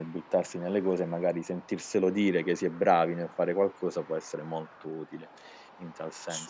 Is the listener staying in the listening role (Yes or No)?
No